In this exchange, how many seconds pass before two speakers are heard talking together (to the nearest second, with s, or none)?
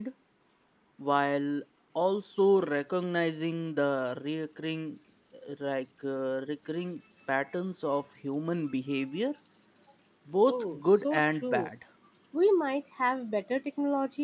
10 s